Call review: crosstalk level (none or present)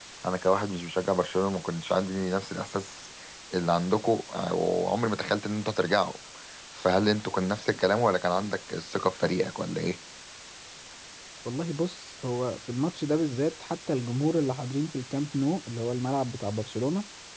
none